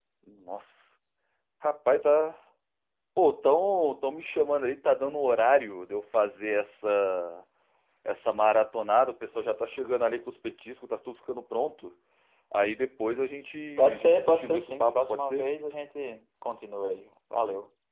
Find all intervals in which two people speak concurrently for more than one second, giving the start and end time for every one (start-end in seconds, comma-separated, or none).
13.9-15.5